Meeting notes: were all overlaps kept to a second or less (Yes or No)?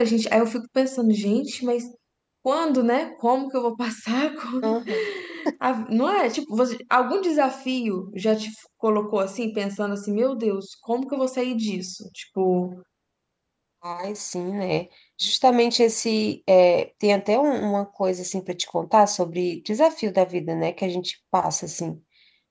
Yes